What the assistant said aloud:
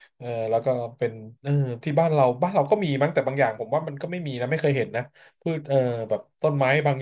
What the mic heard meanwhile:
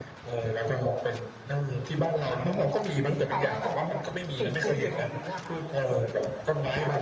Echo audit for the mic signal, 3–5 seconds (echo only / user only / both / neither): both